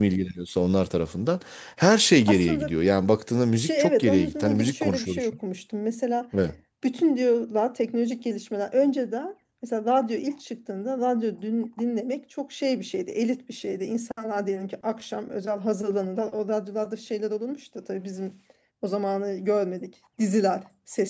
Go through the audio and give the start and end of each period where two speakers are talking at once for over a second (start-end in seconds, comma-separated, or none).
3.5-5.3